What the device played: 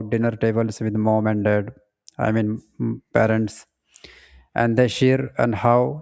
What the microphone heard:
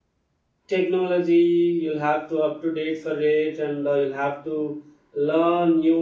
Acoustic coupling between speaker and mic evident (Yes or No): No